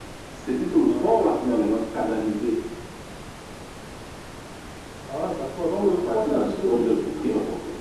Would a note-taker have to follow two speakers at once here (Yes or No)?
Yes